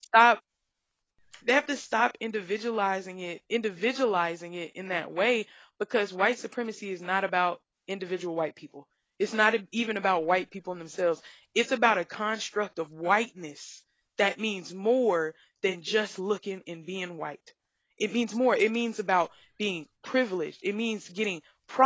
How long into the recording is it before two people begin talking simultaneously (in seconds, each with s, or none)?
none